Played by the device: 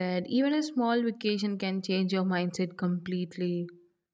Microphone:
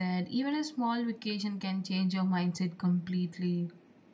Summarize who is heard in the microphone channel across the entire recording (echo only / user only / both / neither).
echo only